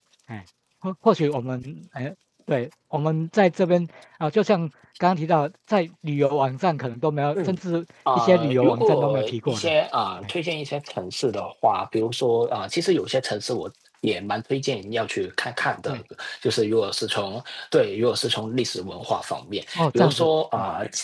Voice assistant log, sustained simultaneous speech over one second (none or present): present